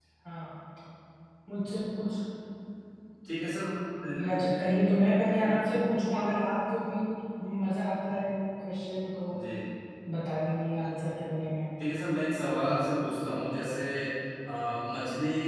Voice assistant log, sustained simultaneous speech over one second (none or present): none